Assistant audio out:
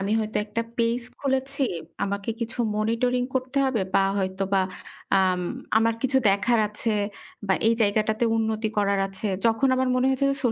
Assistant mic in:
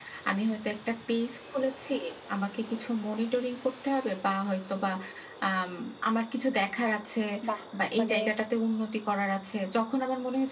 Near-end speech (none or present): present